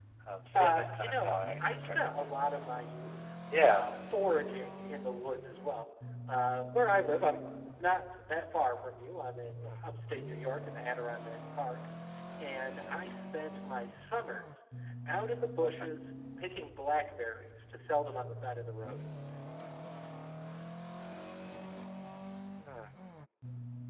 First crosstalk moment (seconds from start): 0.5 s

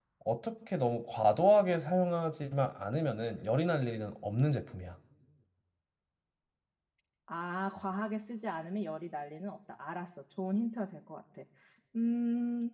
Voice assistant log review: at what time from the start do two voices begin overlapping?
none

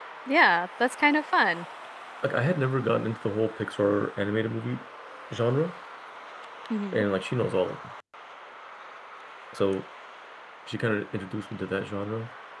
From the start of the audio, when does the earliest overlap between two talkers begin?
none

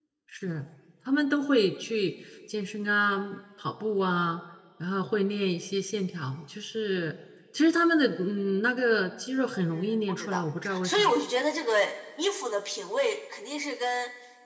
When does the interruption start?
9.7 s

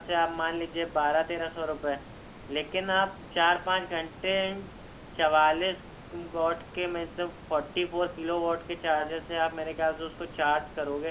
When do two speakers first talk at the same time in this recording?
none

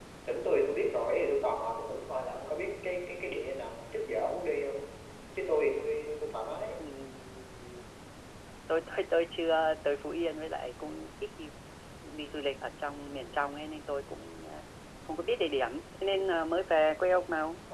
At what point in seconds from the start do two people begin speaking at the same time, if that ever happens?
none

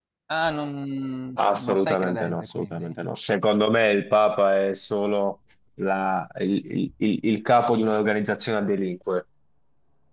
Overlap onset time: 1.4 s

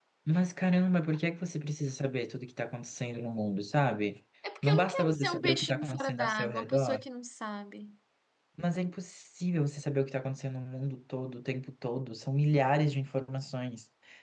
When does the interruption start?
4.4 s

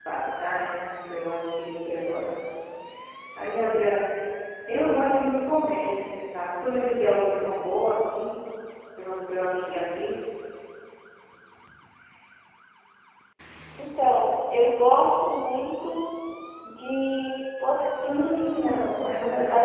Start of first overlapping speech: 18.1 s

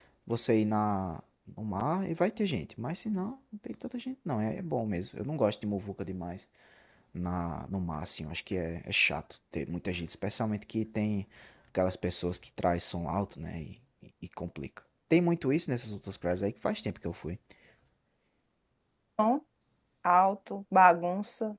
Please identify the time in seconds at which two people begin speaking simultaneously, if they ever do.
none

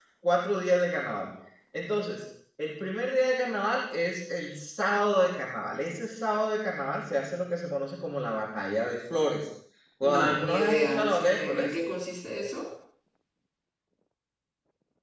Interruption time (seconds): 10.0 s

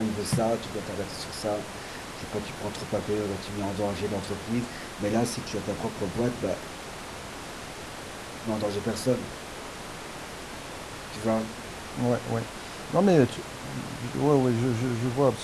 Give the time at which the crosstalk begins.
none

